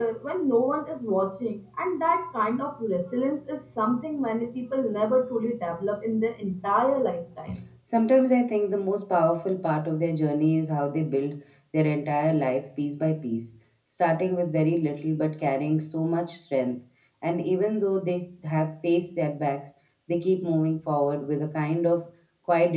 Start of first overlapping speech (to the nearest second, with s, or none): none